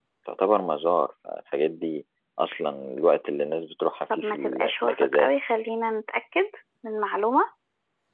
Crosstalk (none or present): present